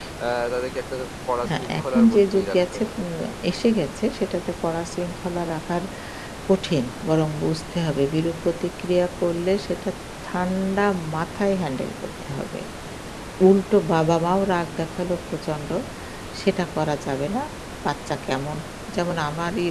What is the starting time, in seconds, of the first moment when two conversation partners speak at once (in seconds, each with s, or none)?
1.4 s